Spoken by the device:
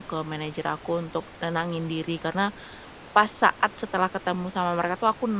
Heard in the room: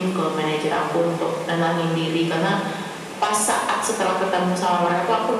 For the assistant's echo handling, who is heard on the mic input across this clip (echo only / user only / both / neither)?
echo only